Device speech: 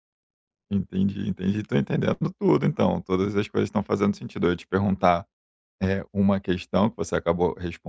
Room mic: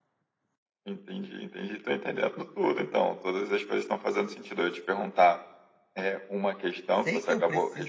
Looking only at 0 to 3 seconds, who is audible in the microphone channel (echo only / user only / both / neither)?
echo only